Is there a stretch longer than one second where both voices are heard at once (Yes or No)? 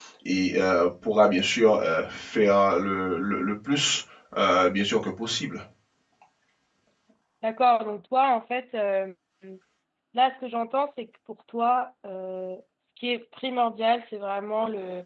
No